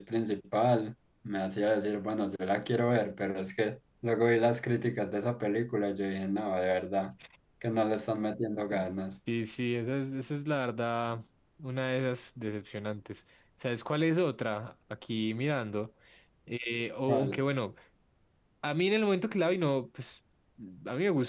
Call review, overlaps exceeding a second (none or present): none